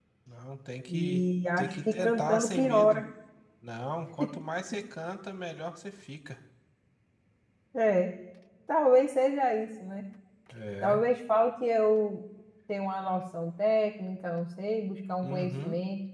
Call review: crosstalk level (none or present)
present